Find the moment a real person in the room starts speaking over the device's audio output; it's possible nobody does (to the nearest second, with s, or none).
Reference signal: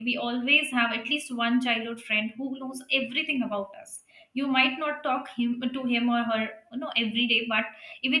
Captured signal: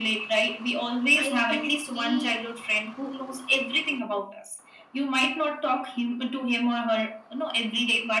1 s